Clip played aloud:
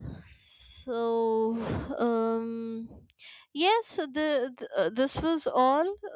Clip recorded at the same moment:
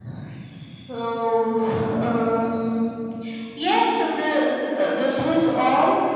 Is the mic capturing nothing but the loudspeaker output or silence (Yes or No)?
Yes